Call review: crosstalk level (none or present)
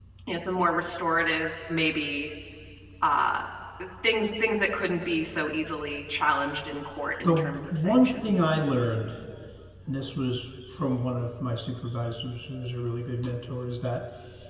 present